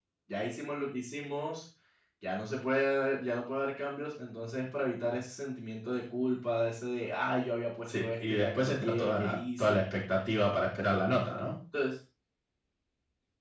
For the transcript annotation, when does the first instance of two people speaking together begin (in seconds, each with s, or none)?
7.9 s